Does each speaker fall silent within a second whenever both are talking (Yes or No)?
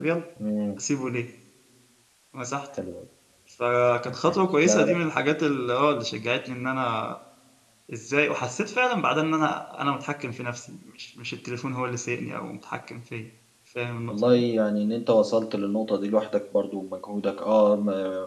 Yes